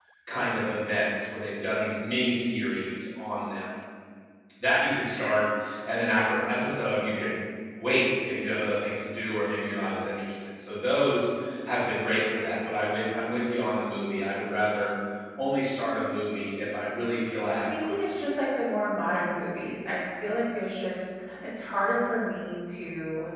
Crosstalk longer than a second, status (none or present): none